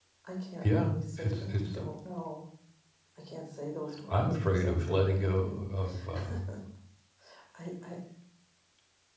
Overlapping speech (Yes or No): Yes